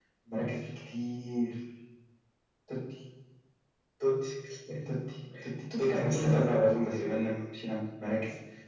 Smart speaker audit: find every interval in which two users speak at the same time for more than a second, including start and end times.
5.8-7.2

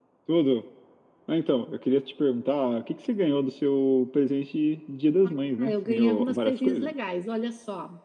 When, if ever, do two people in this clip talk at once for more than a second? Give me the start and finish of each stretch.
5.6-6.9

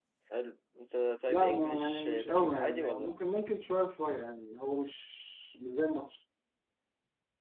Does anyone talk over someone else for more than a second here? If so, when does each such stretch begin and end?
1.3-3.1

